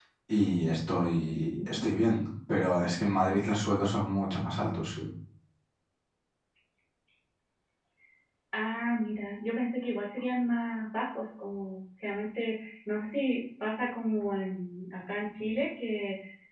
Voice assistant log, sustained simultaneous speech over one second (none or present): none